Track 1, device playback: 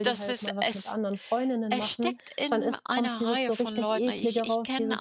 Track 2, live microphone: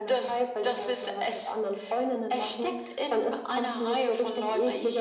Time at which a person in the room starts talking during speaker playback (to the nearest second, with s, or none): none